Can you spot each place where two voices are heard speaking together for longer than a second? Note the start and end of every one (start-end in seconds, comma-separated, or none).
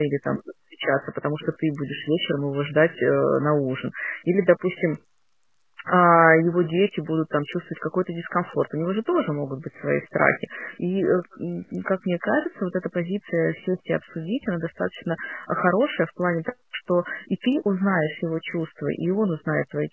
none